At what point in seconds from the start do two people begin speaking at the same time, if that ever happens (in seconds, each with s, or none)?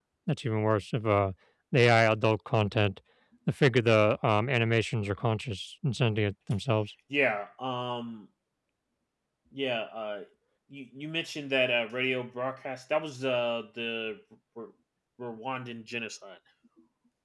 none